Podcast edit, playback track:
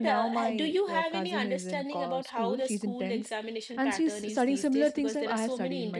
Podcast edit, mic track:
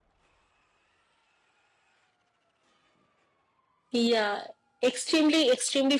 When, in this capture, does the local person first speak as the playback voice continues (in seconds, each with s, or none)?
3.9 s